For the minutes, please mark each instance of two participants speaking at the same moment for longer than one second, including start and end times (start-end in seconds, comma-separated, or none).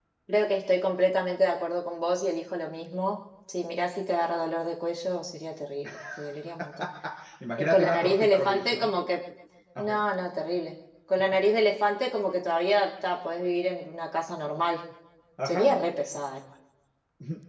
7.6-8.9